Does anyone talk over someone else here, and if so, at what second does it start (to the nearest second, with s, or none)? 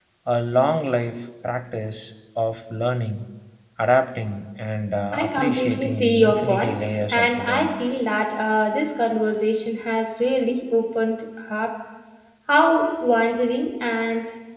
5 s